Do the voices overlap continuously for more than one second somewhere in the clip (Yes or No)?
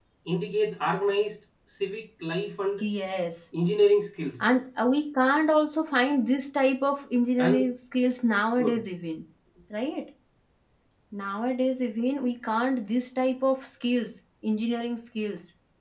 No